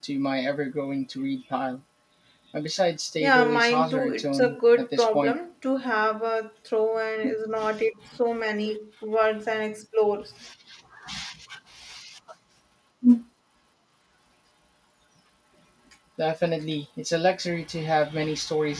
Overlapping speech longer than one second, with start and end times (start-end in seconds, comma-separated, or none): 3.2-5.4